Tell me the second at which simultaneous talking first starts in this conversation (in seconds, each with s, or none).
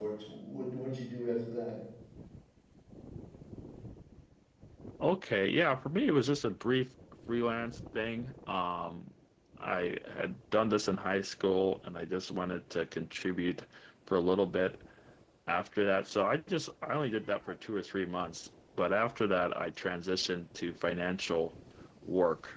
none